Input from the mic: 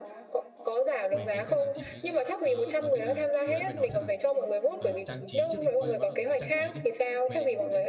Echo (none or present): present